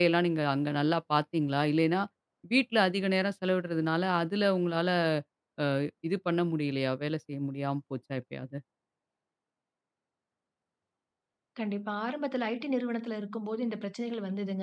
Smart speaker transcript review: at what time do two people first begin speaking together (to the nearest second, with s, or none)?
none